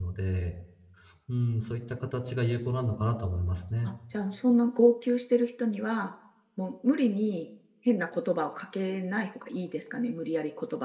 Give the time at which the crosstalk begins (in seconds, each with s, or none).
none